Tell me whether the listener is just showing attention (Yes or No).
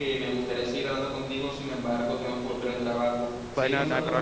No